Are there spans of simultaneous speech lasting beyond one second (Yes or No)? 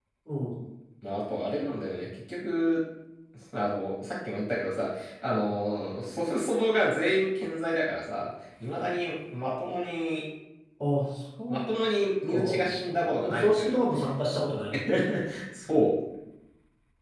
Yes